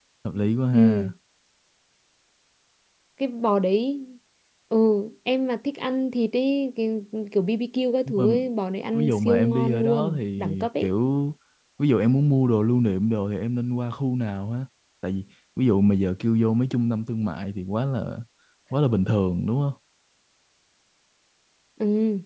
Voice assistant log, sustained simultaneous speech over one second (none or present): present